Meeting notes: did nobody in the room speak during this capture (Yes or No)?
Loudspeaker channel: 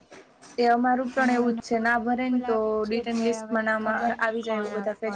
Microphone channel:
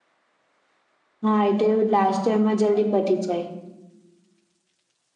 No